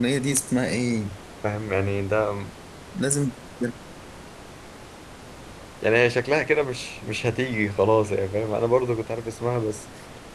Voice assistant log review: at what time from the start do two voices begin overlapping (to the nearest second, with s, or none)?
none